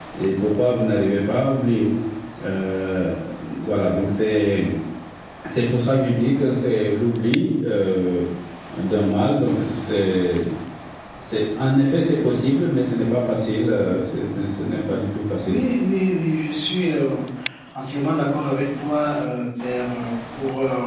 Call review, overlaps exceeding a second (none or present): none